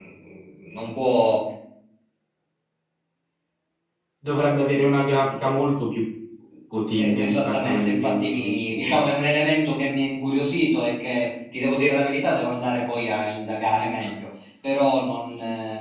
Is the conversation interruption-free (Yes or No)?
No